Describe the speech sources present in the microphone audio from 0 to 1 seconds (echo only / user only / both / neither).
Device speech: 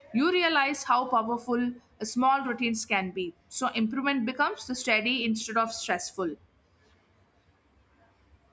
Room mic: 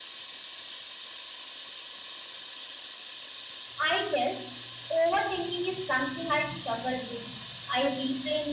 neither